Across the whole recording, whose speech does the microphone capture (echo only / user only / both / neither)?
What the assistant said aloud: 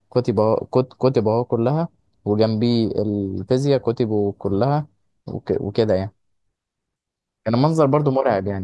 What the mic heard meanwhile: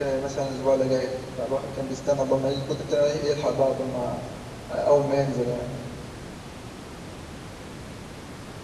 user only